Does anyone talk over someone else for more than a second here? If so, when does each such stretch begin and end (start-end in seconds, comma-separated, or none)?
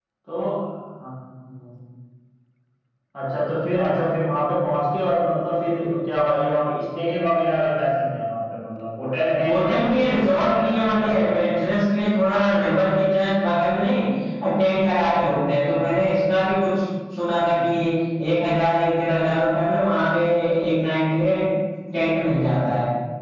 9.4-11.1